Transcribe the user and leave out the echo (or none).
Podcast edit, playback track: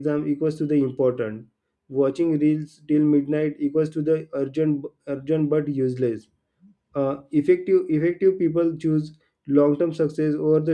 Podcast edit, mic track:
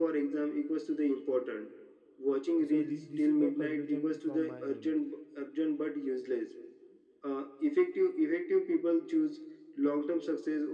So thi- this is the conclusion from my end.